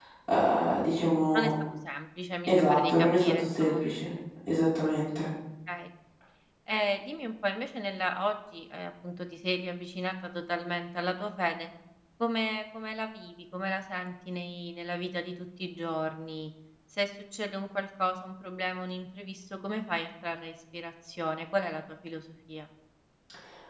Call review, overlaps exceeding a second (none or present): present